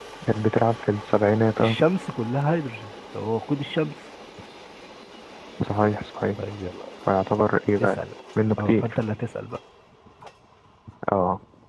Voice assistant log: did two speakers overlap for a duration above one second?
No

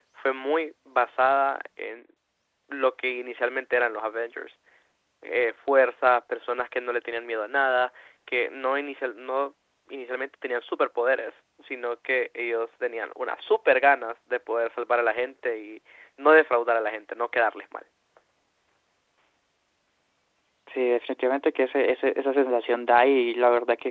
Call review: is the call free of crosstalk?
Yes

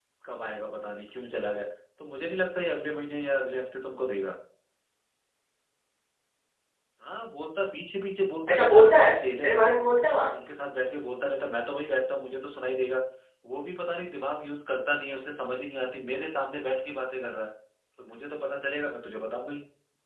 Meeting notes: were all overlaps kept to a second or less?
No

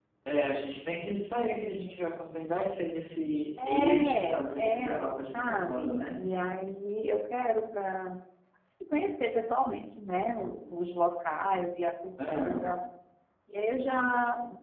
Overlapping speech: Yes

